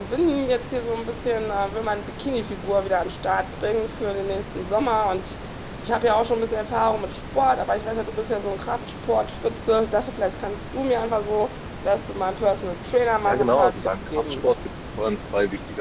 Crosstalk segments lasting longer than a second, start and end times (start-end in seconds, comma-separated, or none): 13.2-14.4